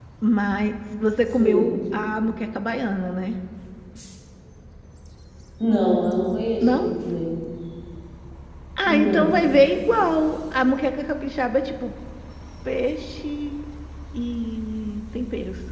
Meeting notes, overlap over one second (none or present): none